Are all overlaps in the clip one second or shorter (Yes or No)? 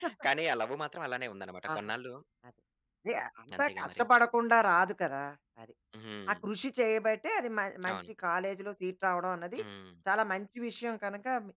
Yes